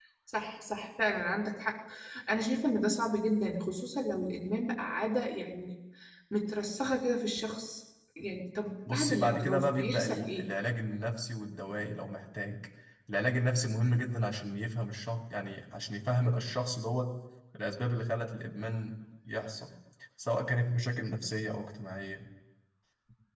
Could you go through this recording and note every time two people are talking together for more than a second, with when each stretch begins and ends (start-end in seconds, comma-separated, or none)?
8.9-10.5